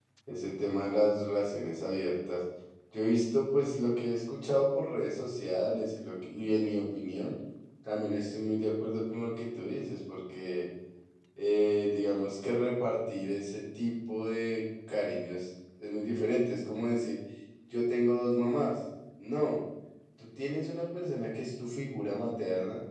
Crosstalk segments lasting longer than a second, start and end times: none

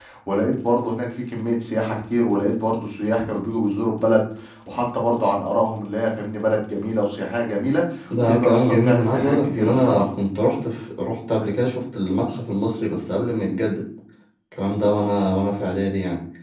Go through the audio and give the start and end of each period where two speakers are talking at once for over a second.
8.2-10.0

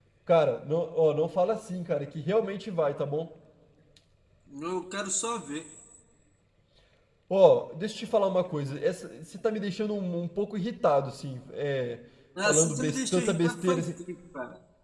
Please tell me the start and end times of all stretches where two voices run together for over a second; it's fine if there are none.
12.4-13.9

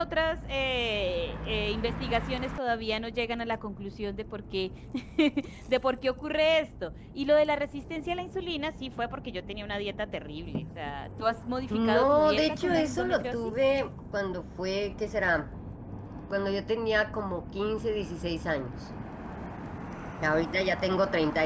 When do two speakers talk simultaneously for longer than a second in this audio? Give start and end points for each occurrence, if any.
11.7-13.5

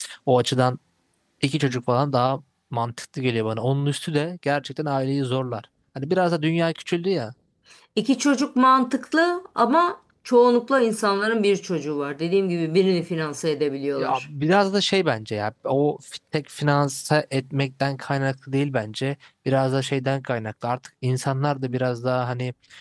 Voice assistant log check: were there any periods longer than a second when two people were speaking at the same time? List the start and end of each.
none

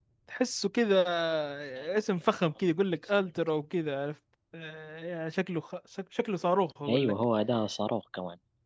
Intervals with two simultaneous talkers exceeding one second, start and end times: none

